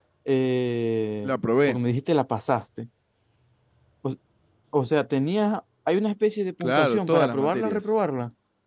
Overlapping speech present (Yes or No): Yes